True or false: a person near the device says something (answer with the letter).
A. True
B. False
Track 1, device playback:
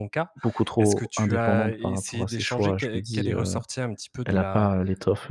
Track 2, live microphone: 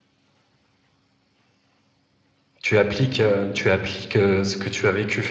A